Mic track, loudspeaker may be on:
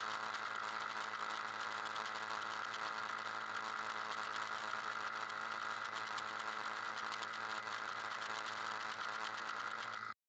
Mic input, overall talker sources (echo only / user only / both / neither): neither